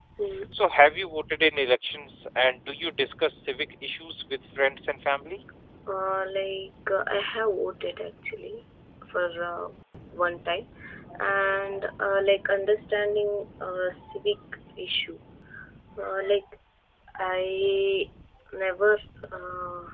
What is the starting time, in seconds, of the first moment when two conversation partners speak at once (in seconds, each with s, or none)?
none